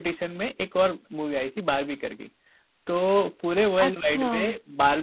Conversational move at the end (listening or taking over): listening